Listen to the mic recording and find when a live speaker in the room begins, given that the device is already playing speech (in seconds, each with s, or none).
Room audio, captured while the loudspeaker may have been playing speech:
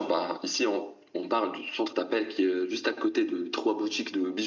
none